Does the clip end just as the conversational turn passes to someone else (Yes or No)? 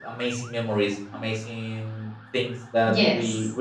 Yes